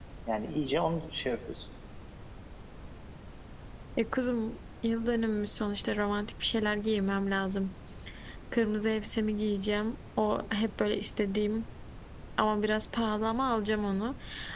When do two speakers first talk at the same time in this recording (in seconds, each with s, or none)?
none